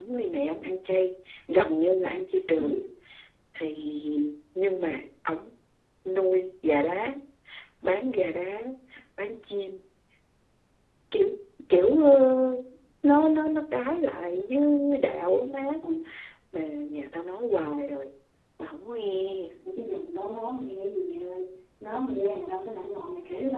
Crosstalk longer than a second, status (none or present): none